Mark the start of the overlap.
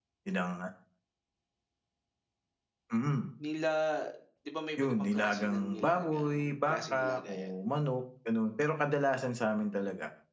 4.8 s

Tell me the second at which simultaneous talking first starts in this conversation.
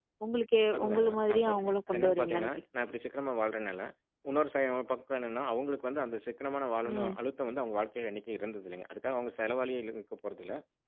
0.8 s

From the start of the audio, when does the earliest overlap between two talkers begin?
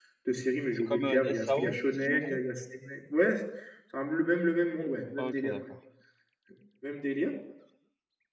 0.8 s

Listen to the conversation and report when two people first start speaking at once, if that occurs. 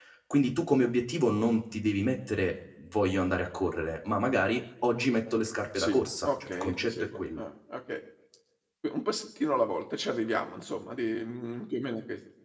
5.8 s

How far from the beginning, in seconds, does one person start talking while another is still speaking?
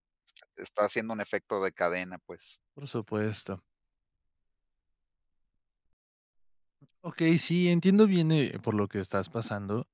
none

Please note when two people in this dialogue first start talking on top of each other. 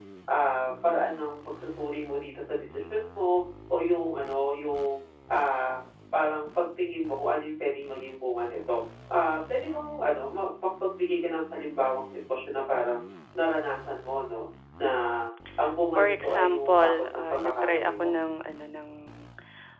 16.0 s

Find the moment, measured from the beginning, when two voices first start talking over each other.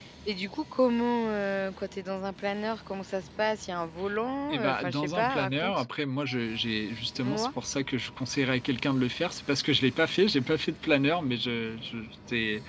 4.5 s

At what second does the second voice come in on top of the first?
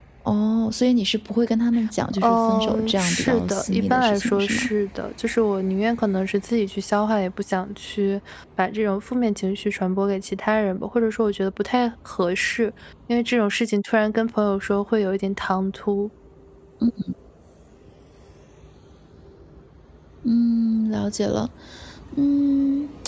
2.1 s

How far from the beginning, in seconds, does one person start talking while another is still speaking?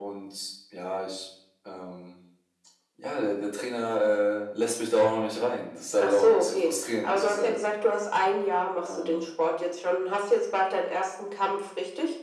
6.0 s

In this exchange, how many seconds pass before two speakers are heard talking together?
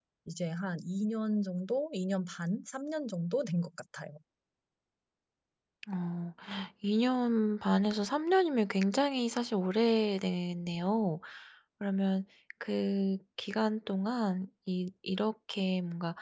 none

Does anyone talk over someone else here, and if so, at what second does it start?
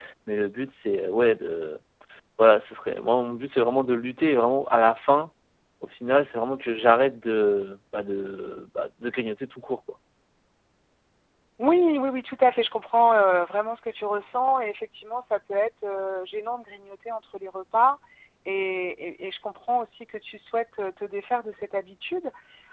none

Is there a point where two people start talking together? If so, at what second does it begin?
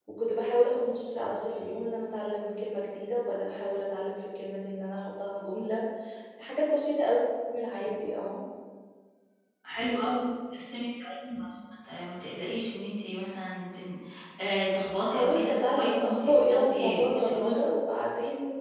15.1 s

